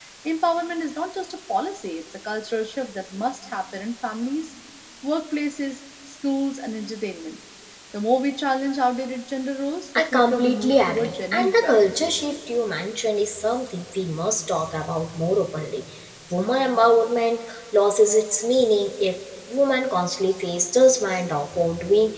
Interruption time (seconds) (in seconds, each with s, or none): 9.9 s